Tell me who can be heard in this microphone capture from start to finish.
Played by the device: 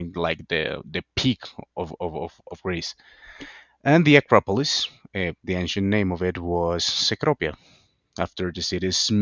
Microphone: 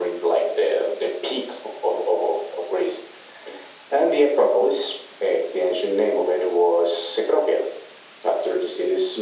echo only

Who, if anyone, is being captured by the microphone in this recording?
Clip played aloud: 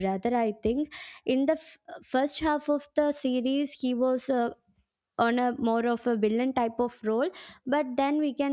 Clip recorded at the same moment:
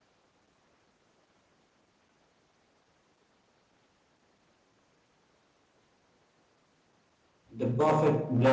user only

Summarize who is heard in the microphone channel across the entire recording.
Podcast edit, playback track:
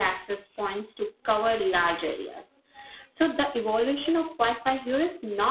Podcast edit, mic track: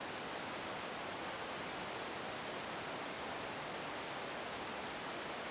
neither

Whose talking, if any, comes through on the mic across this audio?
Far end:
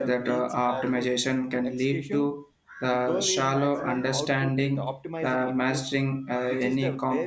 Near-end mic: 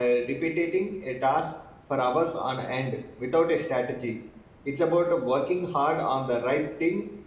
user only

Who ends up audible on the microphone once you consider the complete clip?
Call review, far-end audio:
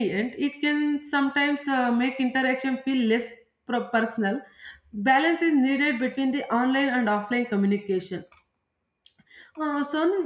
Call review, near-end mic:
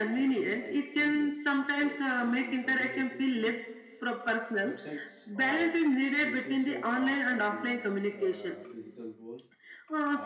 both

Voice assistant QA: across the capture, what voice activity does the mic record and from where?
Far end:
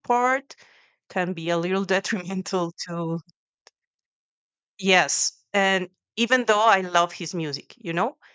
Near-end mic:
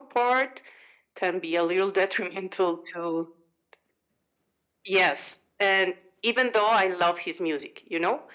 echo only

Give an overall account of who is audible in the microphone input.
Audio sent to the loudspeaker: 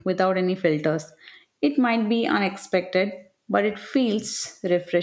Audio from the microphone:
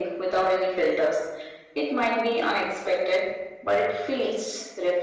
echo only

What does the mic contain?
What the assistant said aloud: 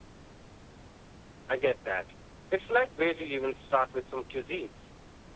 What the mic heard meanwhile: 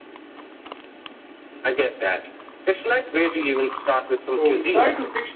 both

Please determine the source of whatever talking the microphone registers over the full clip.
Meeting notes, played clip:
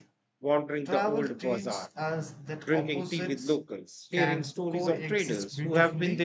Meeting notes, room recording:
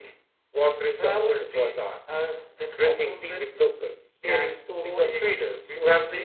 echo only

